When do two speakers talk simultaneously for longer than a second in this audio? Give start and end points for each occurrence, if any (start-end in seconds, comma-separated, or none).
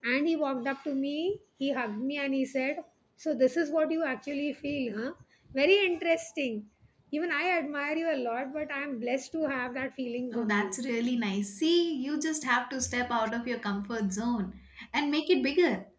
none